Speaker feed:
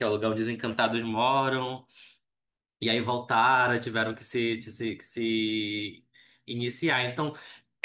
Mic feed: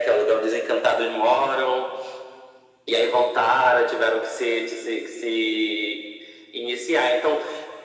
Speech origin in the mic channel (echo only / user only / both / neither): echo only